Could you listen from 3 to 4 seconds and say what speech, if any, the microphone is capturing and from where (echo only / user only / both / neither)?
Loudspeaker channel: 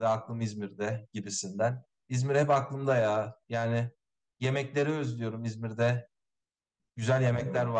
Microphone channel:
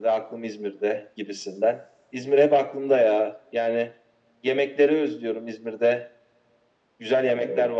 echo only